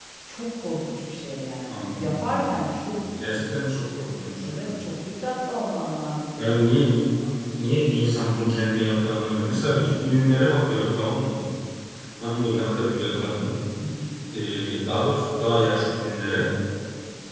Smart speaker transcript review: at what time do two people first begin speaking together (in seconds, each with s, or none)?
1.7 s